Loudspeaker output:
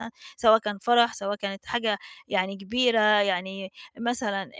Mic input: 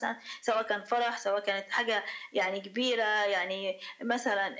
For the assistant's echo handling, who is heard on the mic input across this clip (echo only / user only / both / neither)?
echo only